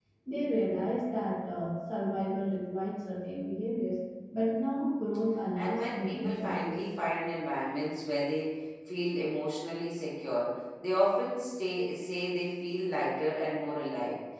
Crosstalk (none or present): present